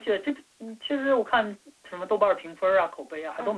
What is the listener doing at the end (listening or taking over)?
taking over